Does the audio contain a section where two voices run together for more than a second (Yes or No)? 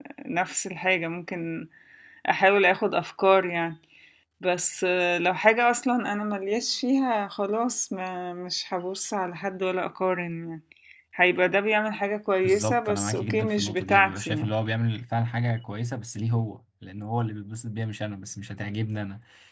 Yes